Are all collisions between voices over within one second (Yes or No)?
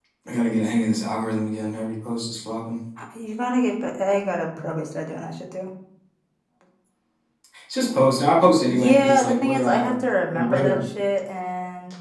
No